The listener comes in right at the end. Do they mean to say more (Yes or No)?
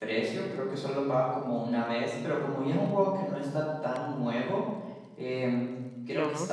No